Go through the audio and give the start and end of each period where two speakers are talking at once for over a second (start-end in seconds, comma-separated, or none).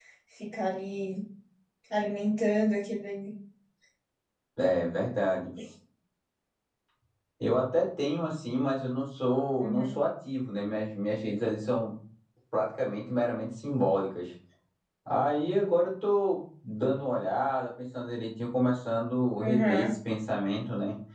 none